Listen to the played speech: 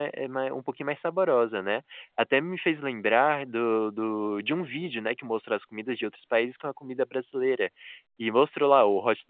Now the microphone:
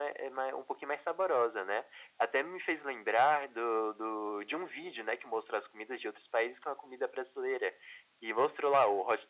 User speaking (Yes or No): No